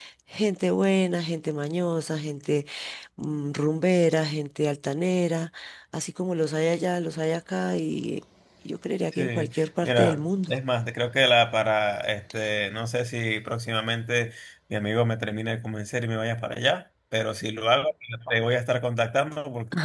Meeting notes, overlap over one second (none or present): present